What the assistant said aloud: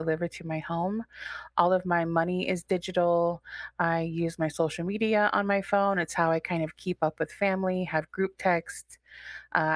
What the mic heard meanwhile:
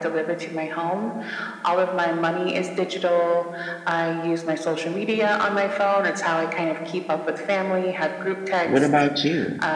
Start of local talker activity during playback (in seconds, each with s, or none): 8.6 s